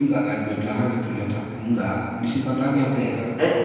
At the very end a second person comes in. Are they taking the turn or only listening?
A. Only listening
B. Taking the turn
B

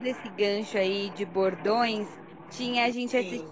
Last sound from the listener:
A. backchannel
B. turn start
A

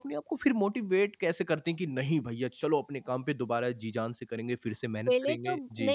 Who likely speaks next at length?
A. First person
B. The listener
B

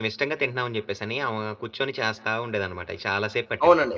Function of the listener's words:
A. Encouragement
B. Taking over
B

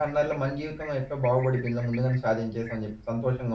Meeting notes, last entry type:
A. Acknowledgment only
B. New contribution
B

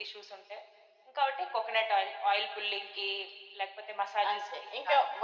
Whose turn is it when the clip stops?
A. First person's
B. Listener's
B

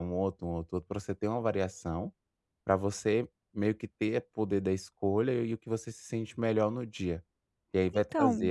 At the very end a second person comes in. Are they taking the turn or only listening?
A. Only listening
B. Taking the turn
A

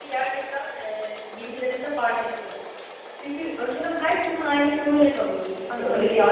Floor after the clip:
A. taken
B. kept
A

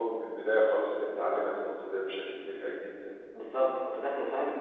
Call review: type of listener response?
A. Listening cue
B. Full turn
B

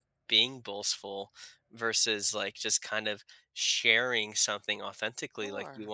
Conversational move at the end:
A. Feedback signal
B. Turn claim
A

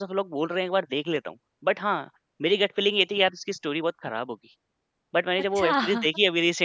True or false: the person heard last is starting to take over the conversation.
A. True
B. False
B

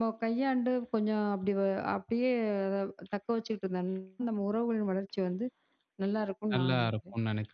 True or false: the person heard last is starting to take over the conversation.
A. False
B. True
B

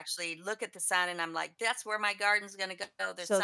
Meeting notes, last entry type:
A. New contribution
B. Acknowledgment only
A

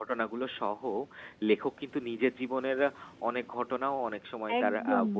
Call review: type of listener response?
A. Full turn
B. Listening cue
A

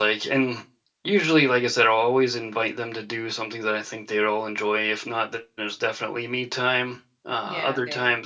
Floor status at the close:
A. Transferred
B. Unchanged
B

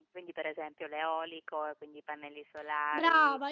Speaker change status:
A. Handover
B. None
A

